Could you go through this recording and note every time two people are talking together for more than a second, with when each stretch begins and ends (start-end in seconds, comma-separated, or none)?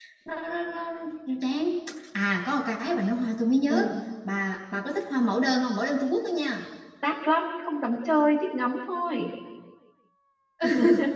none